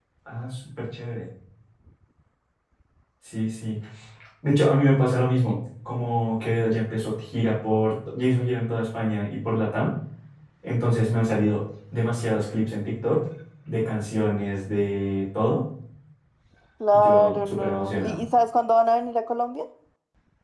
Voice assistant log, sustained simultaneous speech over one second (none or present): present